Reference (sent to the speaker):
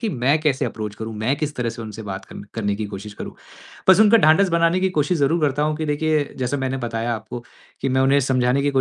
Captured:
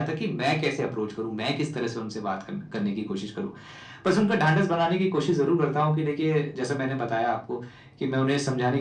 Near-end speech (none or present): none